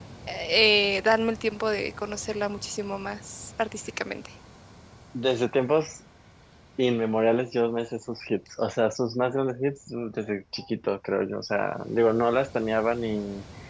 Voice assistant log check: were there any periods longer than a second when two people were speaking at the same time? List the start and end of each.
none

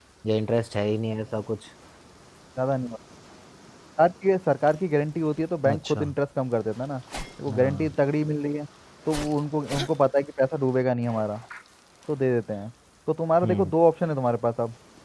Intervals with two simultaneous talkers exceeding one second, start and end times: none

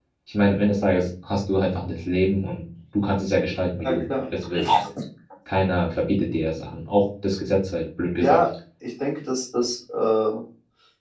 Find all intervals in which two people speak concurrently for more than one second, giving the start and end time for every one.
none

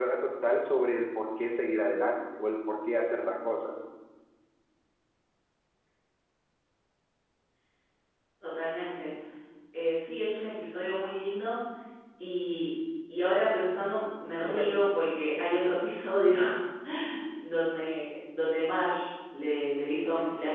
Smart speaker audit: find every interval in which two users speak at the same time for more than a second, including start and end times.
none

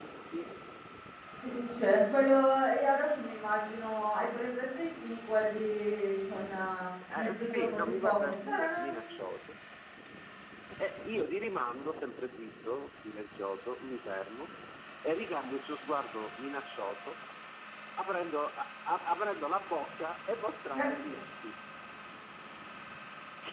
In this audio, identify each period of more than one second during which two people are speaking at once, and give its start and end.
7.2-9.1

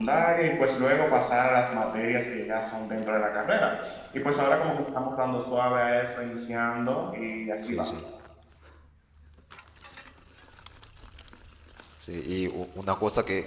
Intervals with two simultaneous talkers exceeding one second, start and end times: none

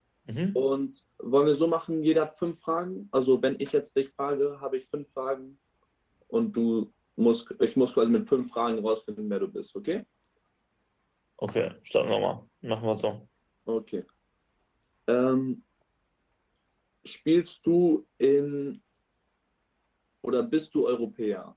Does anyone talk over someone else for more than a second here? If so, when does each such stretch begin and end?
none

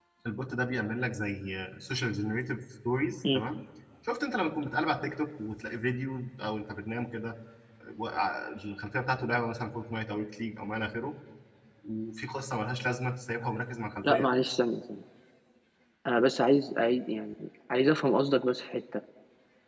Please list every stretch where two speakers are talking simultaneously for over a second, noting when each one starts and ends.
none

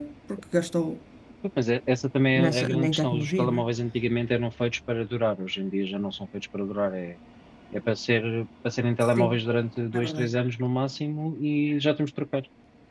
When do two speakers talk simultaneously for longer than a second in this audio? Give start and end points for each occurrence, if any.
2.4-3.6

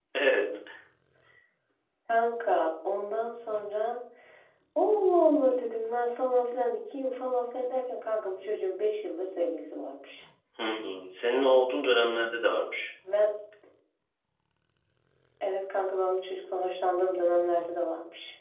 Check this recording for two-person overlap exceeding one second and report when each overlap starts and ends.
none

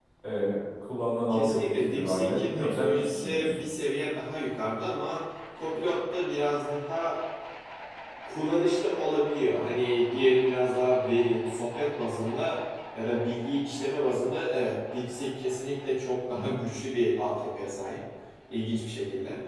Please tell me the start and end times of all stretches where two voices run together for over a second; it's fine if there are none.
1.3-3.6

